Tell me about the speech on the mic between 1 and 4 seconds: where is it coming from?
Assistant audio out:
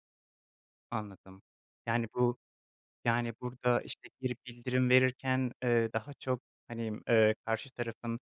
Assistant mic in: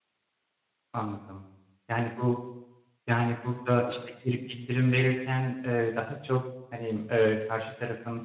echo only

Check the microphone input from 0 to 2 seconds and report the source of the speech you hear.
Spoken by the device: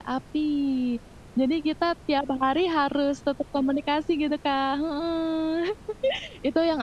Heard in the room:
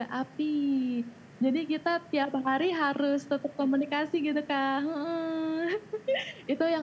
echo only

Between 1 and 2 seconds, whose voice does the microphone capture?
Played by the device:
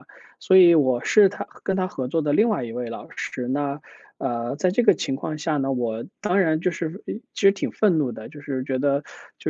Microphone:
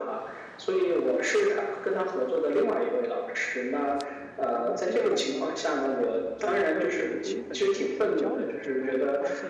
echo only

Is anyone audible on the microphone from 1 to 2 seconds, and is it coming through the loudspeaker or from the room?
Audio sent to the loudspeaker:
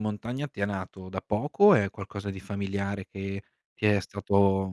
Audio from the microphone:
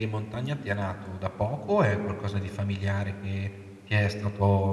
echo only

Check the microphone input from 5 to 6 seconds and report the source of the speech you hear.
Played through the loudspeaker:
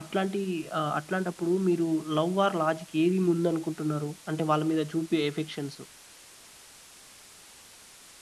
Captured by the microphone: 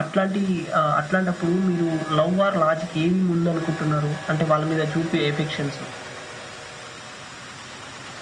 echo only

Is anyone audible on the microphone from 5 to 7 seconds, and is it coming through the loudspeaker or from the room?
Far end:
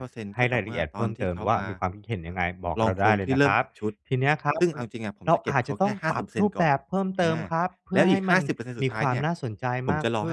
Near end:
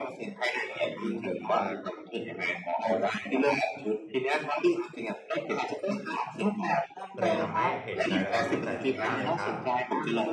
echo only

